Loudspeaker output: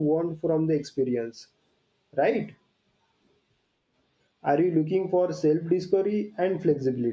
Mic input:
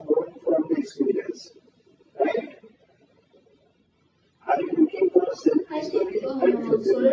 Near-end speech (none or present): present